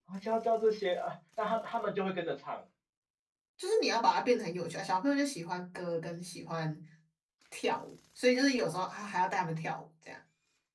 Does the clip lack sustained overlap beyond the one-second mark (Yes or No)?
Yes